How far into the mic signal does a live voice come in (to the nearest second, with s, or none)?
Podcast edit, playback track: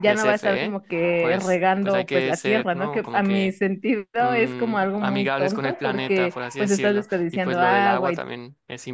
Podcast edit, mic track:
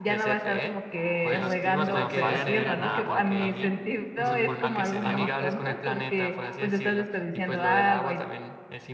1 s